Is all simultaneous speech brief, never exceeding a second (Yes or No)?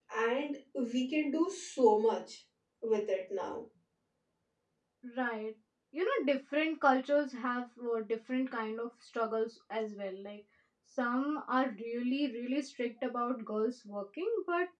Yes